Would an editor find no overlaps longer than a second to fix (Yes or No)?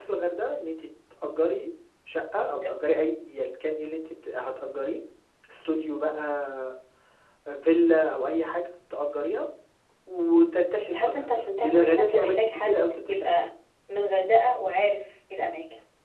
No